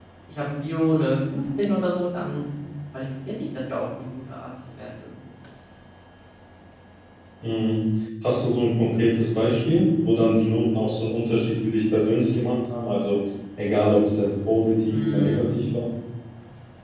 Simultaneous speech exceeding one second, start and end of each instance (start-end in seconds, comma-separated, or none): none